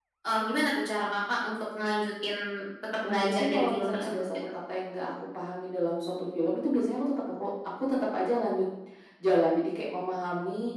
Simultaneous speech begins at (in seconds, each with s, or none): 3.0 s